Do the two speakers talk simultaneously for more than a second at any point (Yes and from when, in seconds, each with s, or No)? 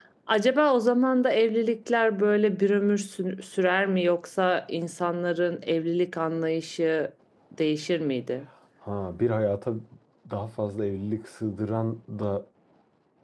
No